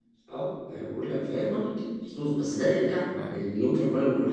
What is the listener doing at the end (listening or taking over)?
listening